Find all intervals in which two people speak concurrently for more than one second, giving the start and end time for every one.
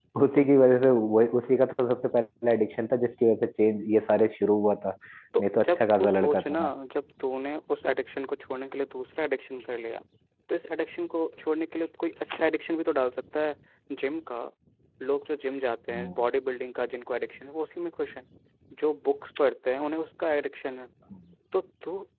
5.4-6.7

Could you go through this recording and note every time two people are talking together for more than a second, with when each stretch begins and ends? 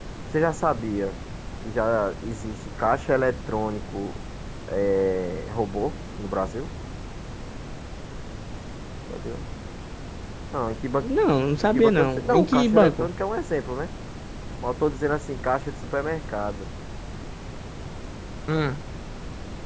11.6-13.1

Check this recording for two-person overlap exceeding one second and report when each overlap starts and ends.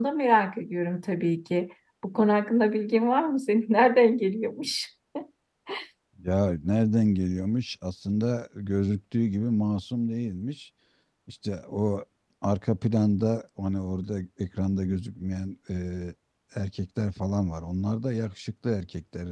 none

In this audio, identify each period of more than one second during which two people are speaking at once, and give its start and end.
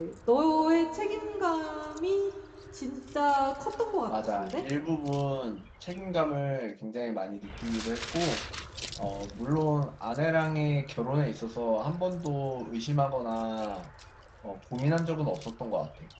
none

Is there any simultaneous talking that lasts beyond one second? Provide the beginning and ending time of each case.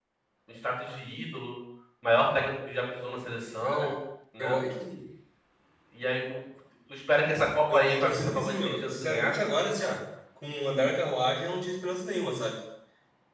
7.7-9.3

